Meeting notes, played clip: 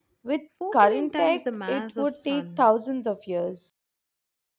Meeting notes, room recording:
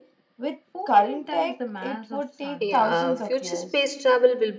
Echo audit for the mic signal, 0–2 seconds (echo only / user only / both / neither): echo only